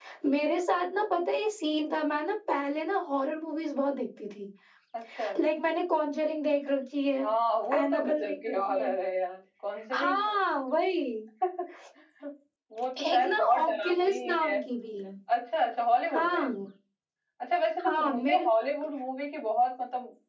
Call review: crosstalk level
present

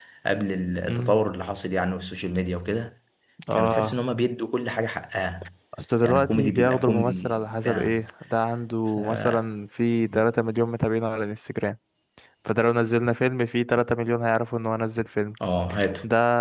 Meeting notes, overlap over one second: present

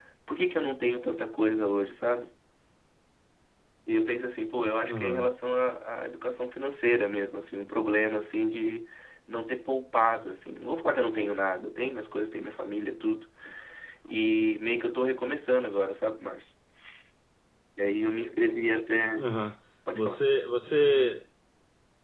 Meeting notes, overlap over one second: none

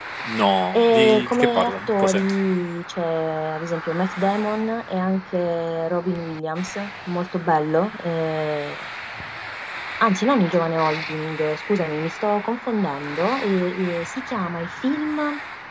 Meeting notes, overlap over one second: present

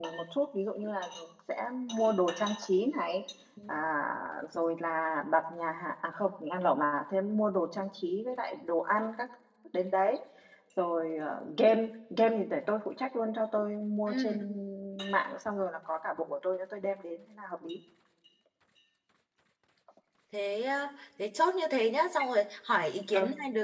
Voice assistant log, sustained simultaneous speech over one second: none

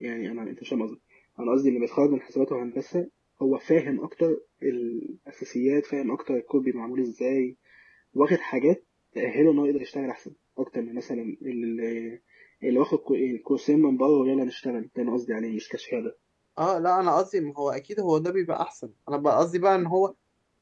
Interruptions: none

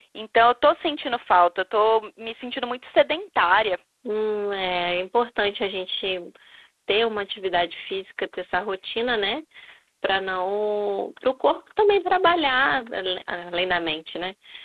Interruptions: none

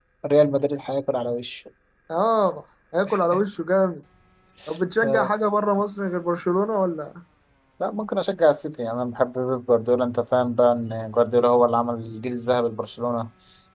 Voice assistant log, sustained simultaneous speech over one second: none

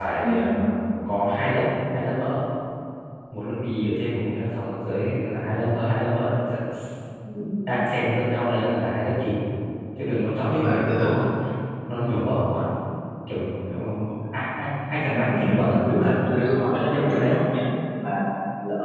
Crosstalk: present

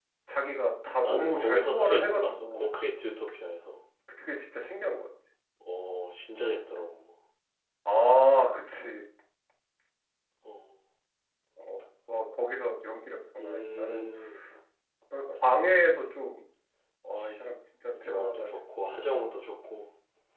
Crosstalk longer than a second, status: present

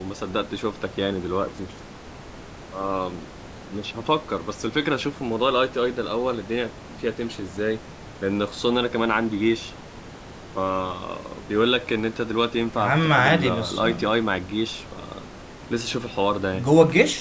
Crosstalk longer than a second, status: present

